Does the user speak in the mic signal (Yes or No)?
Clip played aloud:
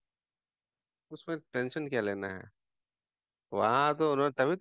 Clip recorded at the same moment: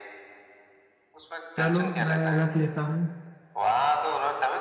Yes